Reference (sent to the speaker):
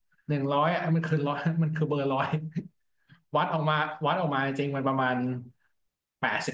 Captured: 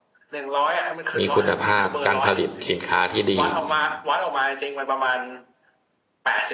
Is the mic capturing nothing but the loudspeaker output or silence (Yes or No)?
No